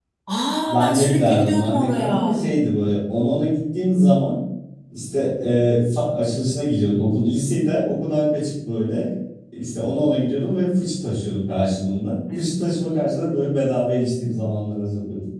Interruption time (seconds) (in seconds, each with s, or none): 0.7 s